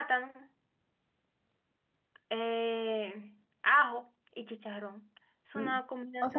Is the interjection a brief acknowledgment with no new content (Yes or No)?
No